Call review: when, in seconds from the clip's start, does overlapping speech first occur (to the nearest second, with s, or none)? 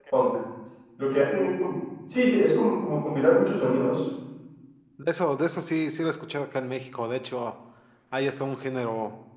none